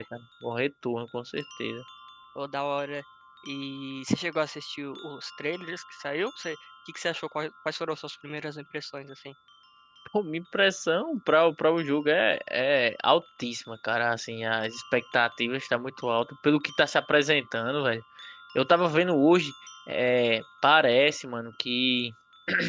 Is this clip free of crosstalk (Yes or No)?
Yes